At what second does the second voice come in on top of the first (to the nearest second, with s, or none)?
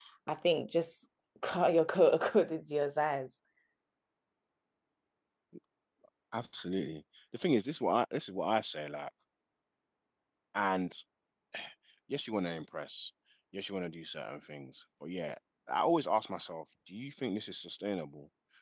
none